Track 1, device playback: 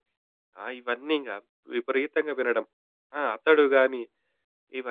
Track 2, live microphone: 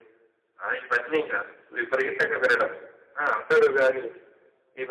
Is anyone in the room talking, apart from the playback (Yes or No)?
No